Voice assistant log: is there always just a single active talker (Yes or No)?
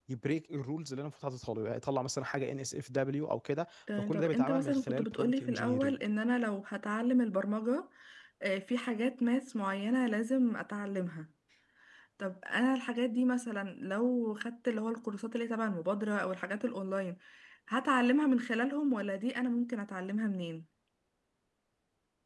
No